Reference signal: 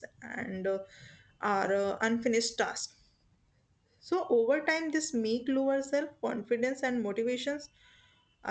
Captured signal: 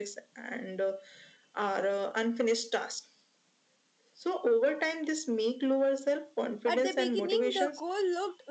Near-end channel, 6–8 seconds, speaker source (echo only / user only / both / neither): both